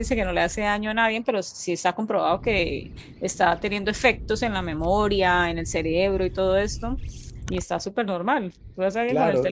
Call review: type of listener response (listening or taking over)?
taking over